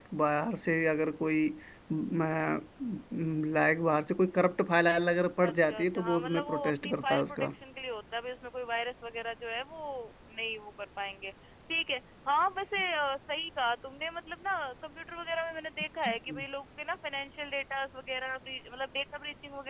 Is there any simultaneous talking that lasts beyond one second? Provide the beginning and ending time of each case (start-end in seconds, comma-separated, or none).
5.5-7.5